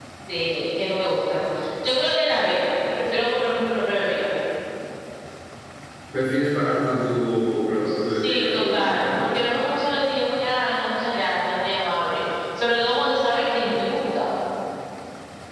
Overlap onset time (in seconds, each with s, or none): 7.8 s